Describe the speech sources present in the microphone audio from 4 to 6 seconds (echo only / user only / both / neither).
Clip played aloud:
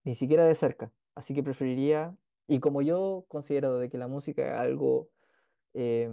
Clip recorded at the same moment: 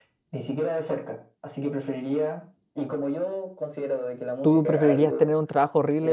both